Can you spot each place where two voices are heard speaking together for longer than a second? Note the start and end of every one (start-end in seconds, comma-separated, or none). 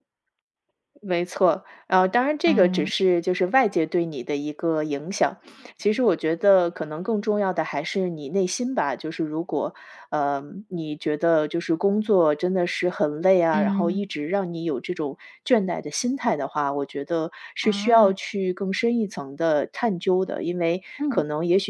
none